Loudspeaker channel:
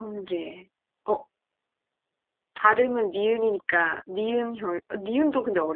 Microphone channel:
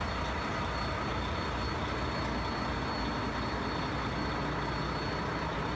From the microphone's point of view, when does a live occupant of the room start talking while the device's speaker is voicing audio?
none

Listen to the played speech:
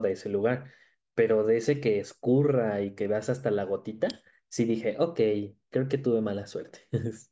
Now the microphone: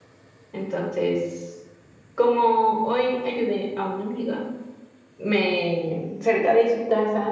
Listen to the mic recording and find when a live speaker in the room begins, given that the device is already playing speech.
0.5 s

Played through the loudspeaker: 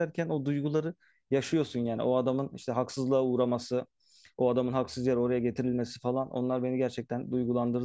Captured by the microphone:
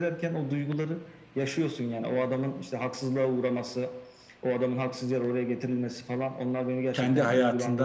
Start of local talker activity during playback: 6.9 s

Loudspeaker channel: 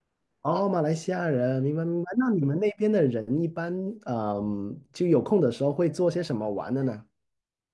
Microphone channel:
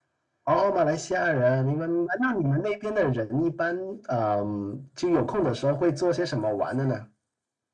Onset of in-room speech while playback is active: none

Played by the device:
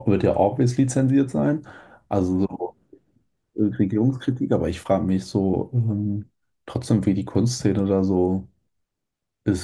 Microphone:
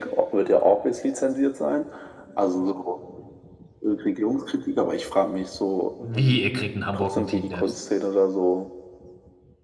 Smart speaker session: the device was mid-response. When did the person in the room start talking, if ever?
6.0 s

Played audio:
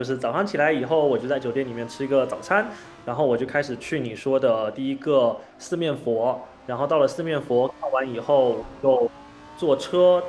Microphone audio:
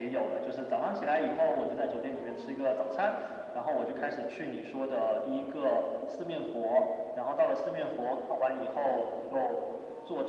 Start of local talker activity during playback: none

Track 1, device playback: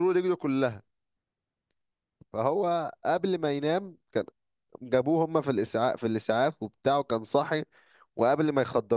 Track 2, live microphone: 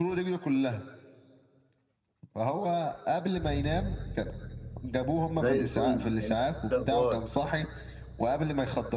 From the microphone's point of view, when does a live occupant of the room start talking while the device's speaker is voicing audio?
5.4 s

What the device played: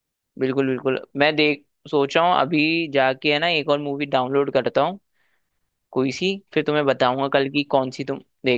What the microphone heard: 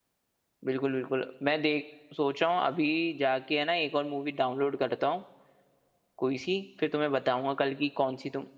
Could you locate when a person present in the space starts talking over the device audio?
none

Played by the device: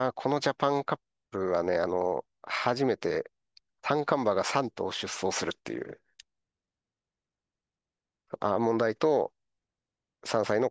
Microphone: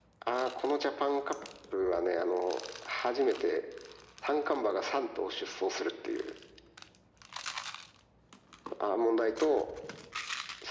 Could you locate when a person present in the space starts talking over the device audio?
none

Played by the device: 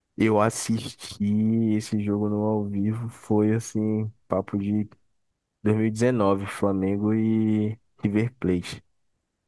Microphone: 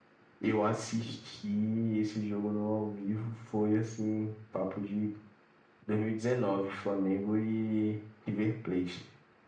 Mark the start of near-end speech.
none

